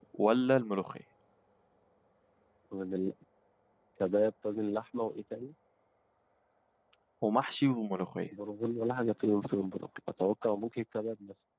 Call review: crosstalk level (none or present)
none